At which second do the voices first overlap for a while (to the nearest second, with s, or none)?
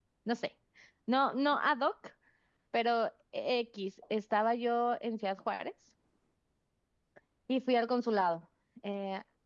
none